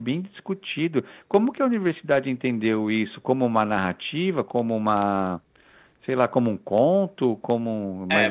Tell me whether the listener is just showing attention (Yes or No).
No